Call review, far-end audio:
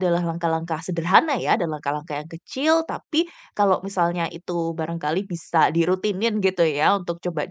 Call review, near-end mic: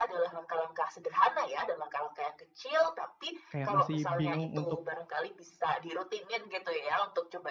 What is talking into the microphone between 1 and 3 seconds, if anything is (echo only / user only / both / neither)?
echo only